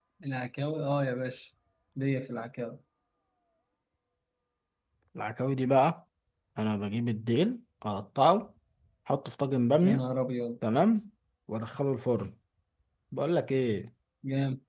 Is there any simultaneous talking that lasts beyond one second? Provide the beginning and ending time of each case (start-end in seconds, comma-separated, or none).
none